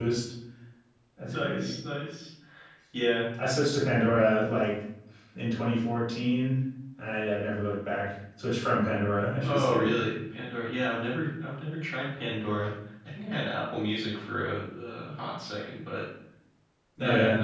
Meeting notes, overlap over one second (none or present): none